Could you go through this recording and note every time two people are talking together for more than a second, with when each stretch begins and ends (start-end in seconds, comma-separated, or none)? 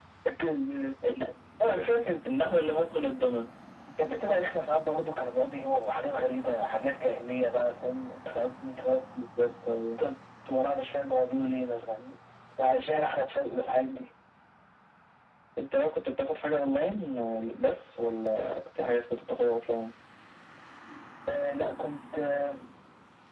none